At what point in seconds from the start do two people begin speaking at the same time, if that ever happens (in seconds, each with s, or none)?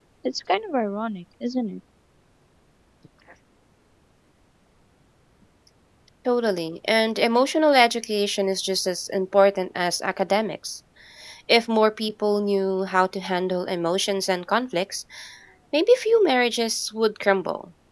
none